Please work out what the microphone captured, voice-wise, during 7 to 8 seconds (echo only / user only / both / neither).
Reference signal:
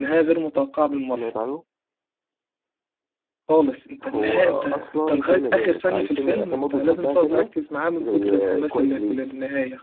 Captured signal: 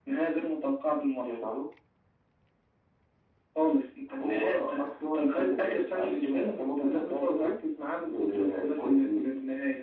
echo only